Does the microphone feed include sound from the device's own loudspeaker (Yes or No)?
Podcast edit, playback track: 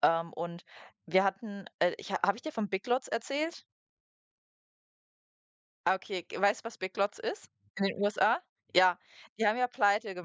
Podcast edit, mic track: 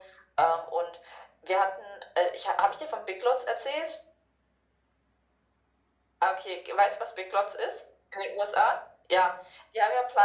Yes